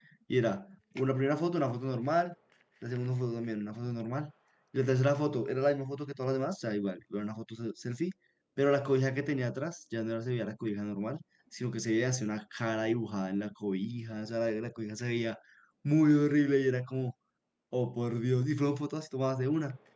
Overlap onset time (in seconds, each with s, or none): none